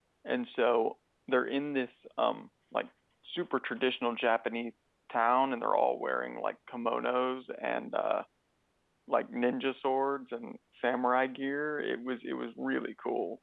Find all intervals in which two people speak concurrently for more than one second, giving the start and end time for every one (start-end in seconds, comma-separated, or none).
none